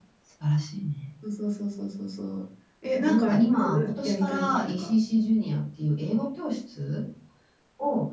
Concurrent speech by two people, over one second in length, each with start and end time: 3.0-4.9

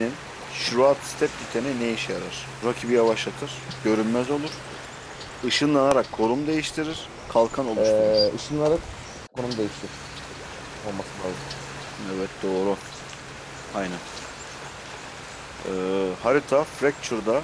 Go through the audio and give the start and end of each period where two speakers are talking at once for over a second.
none

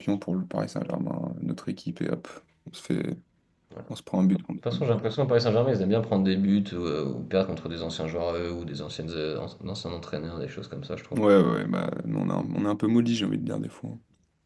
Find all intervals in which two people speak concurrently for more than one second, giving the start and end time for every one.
none

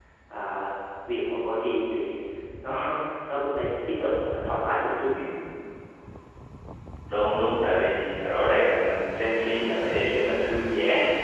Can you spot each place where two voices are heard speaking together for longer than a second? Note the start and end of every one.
none

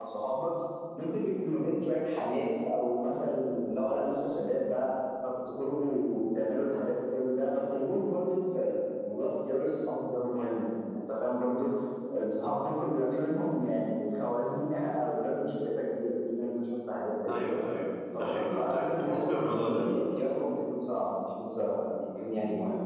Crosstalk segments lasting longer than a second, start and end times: 18.1-19.8

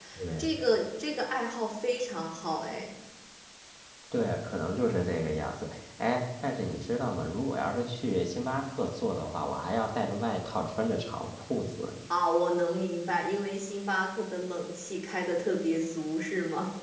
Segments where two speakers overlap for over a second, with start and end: none

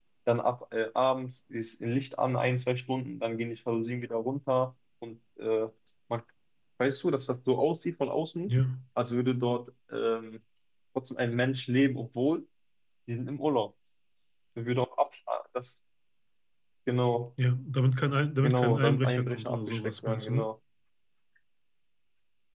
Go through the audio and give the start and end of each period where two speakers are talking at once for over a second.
18.4-20.5

